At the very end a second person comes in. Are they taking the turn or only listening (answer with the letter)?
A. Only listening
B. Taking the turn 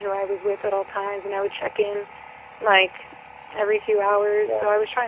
A